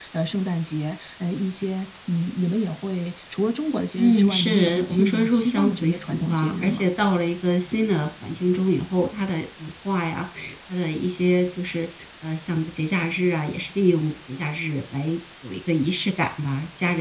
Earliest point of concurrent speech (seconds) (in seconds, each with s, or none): 4.0 s